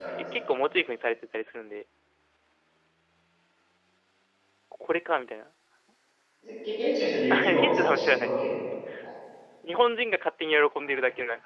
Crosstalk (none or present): present